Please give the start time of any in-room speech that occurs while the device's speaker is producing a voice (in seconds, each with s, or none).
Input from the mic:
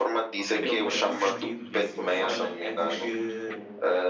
0.4 s